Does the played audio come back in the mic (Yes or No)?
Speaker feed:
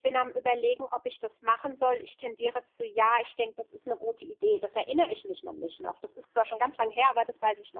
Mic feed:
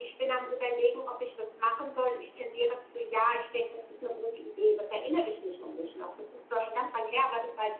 Yes